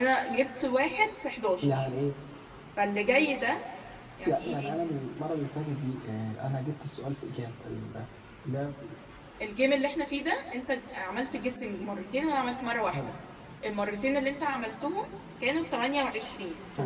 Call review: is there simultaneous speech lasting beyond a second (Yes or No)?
No